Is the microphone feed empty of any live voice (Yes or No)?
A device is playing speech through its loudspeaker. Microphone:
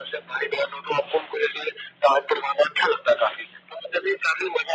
Yes